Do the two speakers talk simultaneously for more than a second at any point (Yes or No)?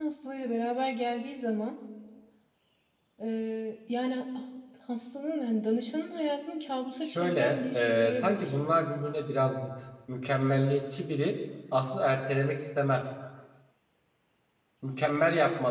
Yes